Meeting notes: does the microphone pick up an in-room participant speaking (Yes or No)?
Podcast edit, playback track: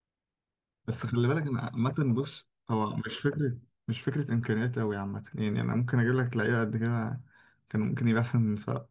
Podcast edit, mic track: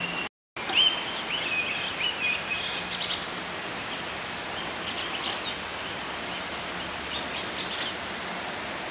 No